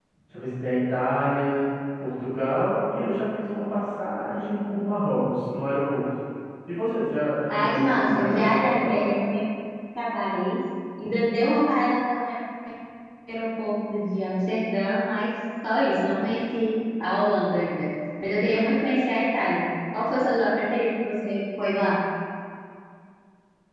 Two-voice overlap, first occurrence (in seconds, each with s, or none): 7.5 s